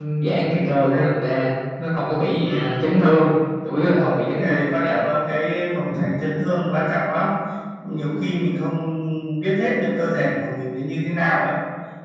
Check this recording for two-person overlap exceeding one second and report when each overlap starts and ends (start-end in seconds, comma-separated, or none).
3.6-5.0